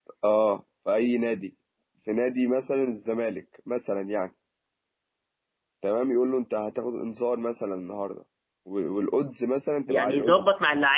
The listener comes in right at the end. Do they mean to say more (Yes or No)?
Yes